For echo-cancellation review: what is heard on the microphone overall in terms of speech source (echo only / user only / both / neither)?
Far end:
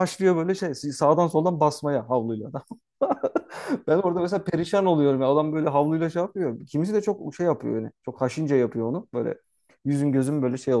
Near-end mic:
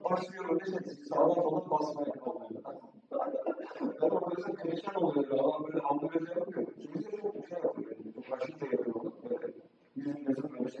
echo only